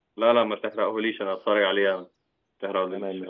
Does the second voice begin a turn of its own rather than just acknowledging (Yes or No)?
Yes